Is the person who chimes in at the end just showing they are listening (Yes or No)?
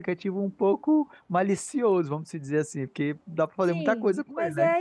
No